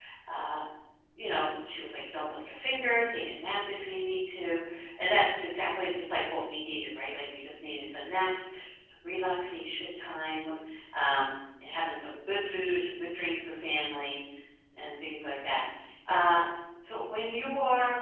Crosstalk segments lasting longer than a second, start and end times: none

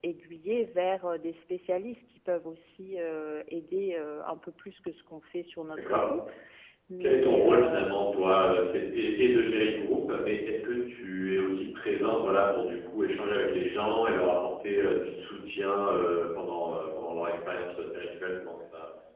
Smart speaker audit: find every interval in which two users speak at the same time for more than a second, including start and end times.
7.0-8.5

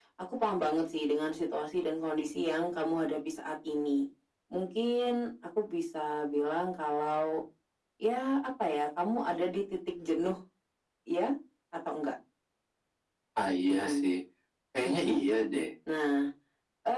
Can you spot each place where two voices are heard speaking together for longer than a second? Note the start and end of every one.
none

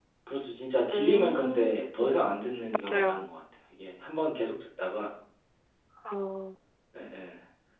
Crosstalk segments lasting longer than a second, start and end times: 0.9-2.1

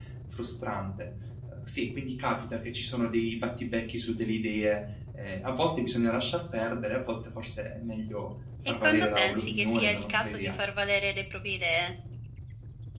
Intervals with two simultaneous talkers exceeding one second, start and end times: 8.7-10.5

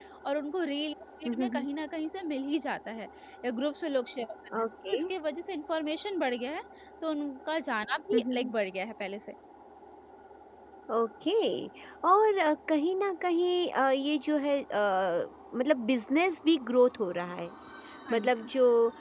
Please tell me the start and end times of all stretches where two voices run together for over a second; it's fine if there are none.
none

